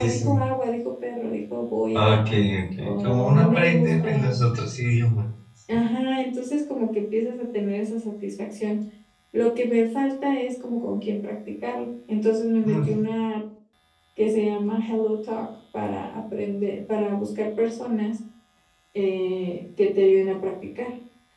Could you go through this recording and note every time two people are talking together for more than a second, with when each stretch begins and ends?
2.8-4.4

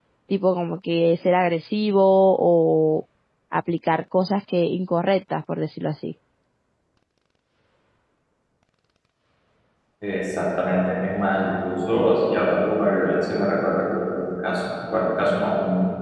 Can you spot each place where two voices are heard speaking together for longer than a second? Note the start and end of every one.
none

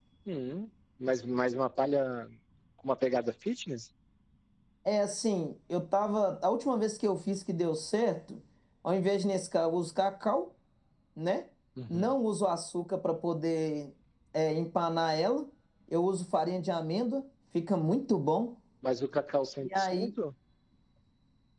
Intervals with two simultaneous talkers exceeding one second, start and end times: none

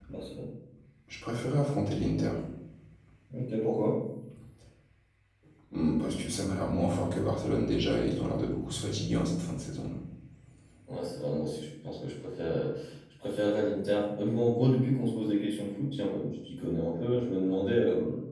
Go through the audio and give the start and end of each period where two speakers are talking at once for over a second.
none

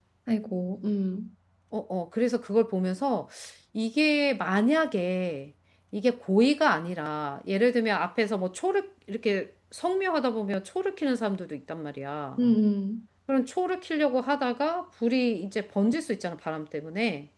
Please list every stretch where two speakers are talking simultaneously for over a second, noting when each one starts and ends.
none

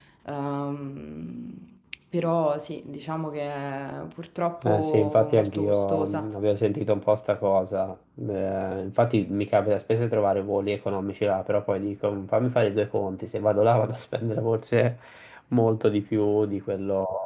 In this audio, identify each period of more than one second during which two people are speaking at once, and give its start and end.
4.6-6.3

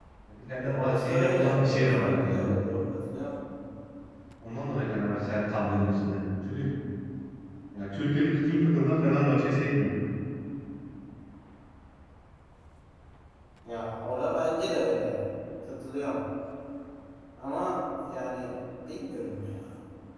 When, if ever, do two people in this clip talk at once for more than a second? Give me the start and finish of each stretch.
0.6-2.5

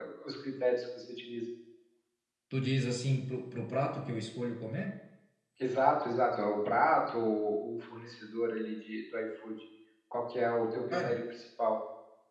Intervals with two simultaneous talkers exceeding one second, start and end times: none

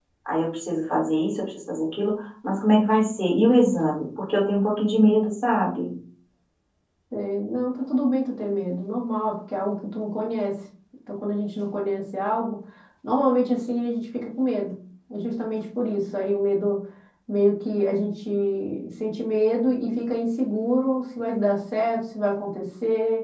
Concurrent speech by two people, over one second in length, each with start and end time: none

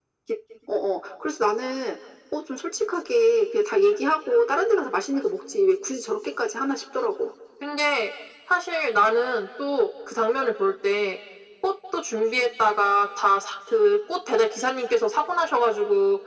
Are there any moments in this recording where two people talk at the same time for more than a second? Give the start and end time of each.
none

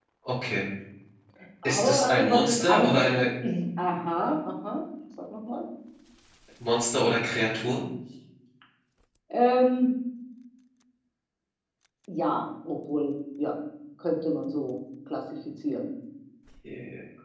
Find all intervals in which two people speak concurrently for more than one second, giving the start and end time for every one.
1.6-3.2

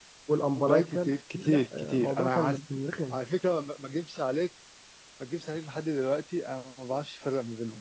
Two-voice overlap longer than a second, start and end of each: 0.7-2.6

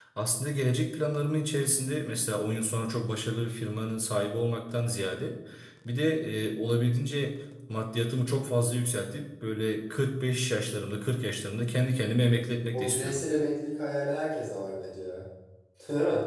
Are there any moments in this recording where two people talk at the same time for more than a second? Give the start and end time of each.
none

